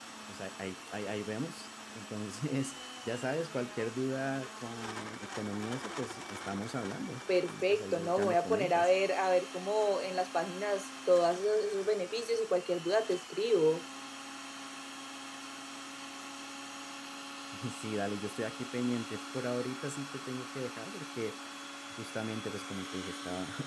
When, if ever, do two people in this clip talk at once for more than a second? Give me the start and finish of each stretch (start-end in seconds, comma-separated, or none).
7.5-8.9